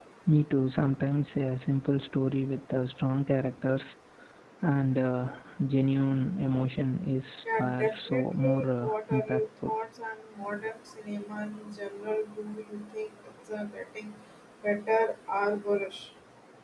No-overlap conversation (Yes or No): No